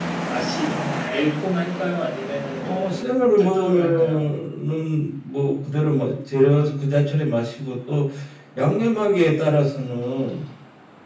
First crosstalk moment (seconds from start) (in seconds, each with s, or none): 2.6 s